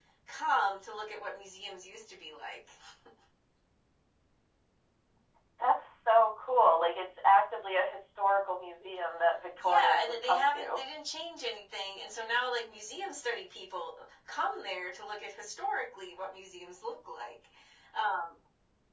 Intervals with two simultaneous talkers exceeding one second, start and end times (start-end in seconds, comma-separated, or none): 9.6-10.8